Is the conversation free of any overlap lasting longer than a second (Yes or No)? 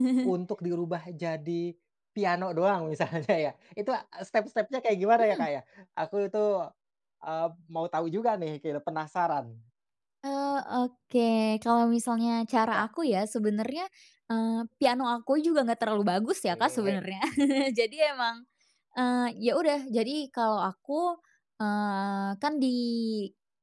Yes